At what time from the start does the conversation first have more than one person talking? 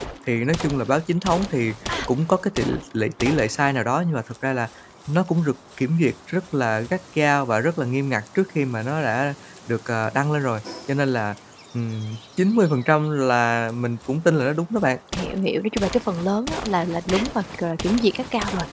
none

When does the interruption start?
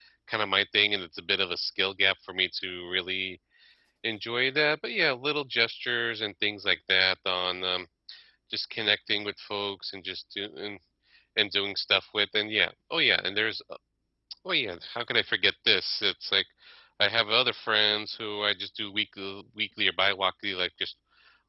none

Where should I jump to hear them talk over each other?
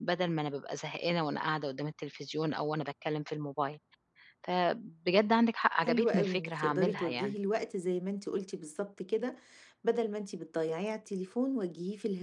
6 s

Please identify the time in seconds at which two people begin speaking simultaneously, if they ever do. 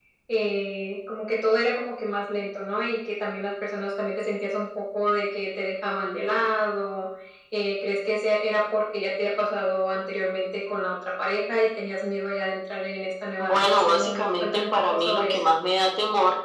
13 s

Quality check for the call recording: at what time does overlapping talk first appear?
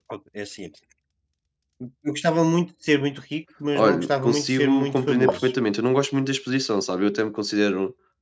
4 s

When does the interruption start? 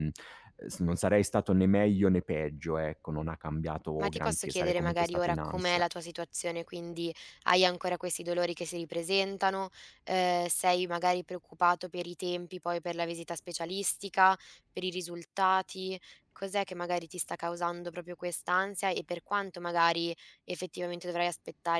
4 s

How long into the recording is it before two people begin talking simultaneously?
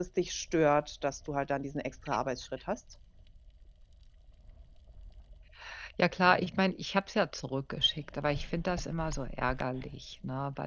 none

